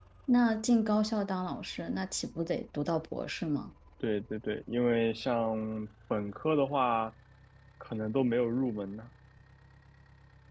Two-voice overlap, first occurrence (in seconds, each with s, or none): none